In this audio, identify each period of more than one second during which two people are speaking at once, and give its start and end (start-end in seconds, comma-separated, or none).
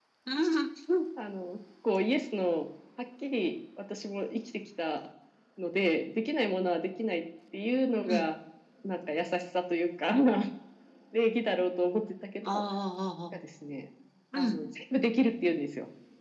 none